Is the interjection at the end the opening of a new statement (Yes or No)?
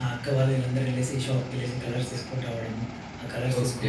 Yes